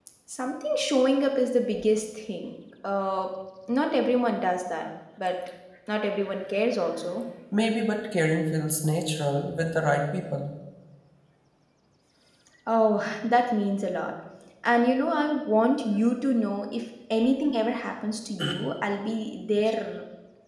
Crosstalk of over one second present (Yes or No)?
No